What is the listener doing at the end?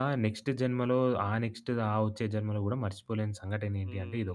taking over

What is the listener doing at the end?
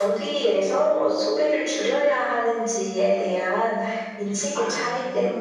listening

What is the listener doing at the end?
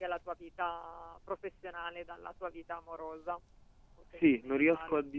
taking over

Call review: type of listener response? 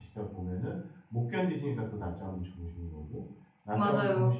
listening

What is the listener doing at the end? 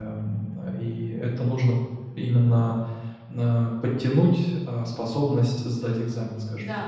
taking over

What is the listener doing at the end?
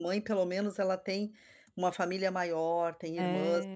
listening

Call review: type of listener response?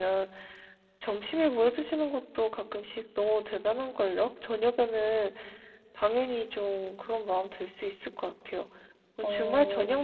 listening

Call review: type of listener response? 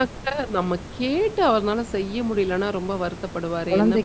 taking over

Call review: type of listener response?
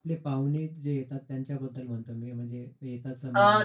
taking over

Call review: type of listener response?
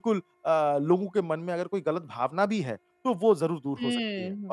taking over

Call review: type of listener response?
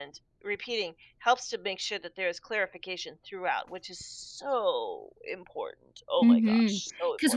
taking over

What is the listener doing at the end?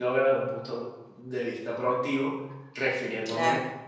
listening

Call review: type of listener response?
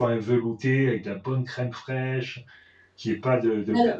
listening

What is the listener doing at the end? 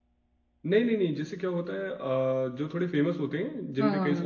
listening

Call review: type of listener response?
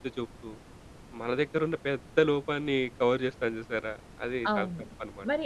taking over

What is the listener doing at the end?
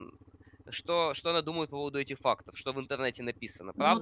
taking over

